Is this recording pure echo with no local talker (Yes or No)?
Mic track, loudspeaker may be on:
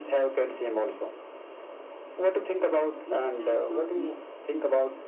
No